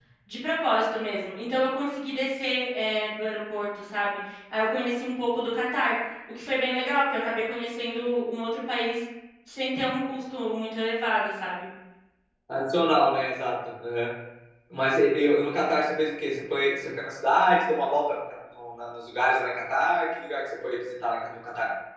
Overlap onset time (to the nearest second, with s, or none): none